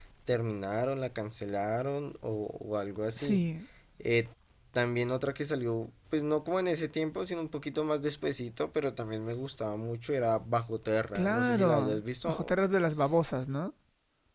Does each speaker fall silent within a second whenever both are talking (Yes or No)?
No